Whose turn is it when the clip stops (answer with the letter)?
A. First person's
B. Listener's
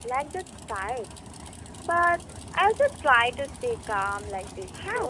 B